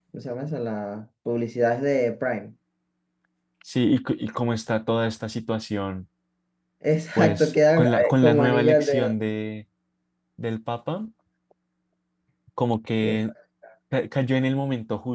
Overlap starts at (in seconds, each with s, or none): 7.2 s